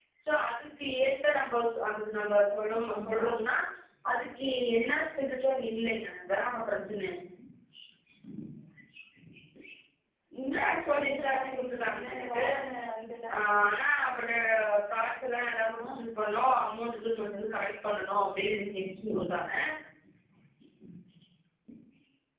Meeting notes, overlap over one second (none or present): present